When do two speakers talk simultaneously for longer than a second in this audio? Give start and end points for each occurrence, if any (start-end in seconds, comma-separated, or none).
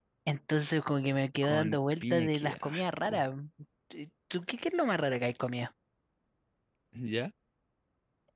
1.4-3.2